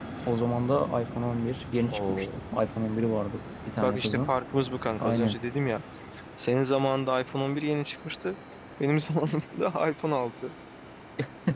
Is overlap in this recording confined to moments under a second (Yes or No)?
Yes